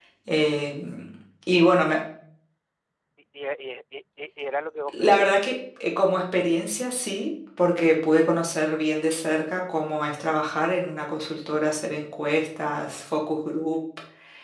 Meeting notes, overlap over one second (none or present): none